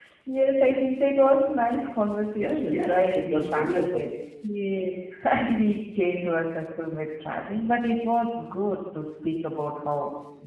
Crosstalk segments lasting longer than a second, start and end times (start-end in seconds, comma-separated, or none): 2.4-4.0